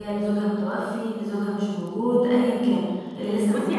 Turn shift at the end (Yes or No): Yes